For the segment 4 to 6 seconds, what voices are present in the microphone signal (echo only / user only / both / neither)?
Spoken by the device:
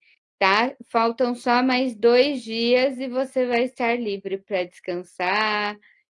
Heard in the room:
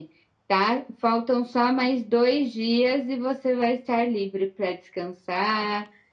echo only